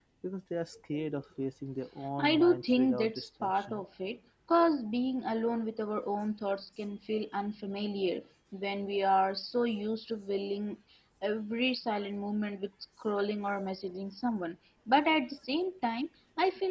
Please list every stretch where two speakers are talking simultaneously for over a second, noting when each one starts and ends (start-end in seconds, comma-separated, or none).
2.2-3.8